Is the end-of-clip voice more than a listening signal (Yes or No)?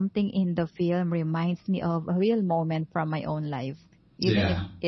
No